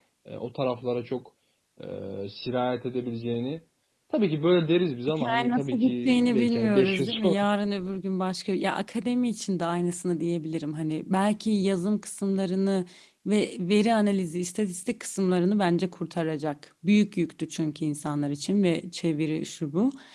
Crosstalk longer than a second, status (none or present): present